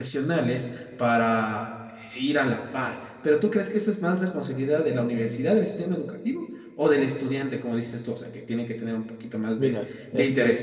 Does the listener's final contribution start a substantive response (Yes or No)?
Yes